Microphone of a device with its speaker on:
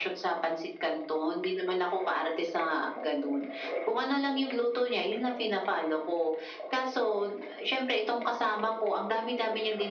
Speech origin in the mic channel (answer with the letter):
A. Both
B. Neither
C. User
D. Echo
D